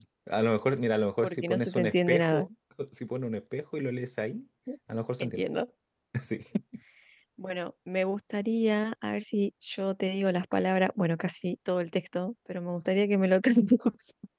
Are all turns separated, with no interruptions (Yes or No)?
No